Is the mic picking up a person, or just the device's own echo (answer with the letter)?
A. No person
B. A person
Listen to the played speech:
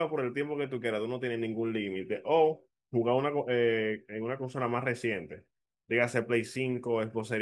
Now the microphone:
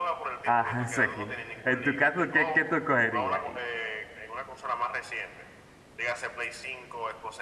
B